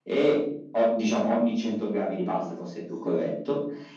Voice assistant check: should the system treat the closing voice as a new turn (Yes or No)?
No